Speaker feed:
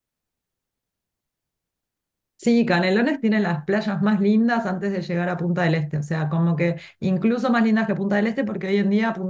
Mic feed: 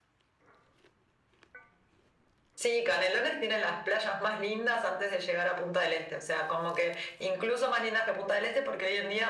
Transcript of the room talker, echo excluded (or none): none